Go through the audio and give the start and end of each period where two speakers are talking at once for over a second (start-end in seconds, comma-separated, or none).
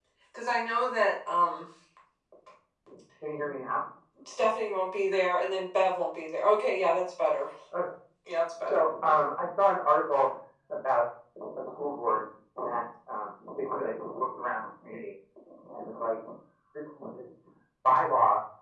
none